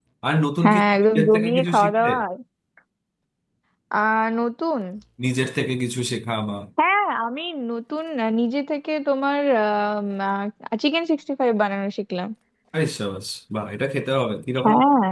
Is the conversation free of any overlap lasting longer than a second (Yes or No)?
No